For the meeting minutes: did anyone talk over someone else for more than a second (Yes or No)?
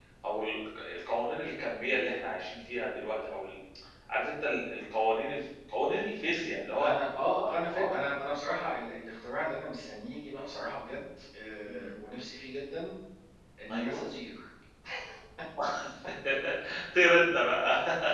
No